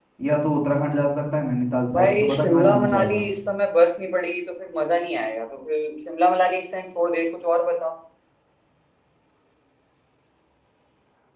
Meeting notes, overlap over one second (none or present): present